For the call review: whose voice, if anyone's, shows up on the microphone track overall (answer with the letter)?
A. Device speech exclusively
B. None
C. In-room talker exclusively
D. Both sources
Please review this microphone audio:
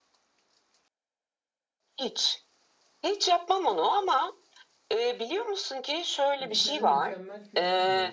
D